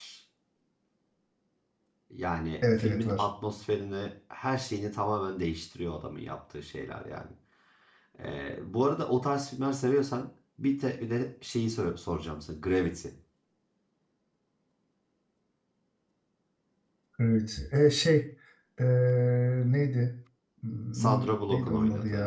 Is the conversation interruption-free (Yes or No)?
No